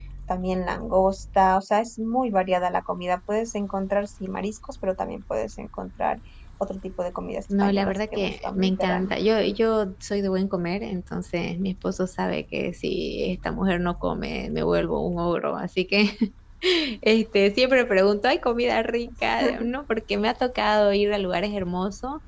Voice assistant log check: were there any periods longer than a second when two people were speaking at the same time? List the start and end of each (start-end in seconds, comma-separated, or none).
7.6-9.1